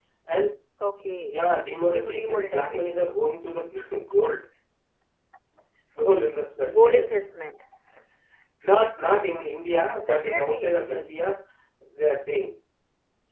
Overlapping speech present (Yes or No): Yes